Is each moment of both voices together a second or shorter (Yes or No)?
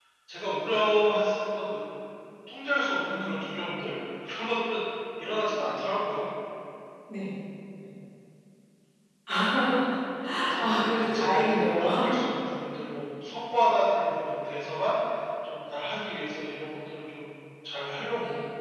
No